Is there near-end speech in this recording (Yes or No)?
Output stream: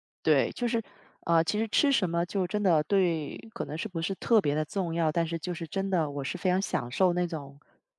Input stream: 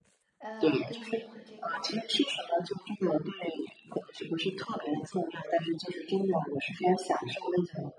Yes